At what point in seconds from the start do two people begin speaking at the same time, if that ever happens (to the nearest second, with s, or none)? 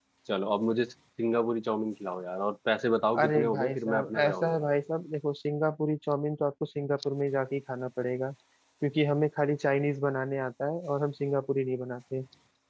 3 s